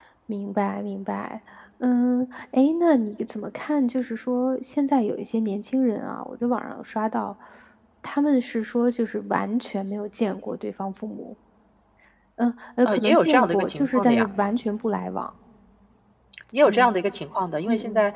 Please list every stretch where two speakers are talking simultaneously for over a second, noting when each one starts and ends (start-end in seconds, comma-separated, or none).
12.8-14.3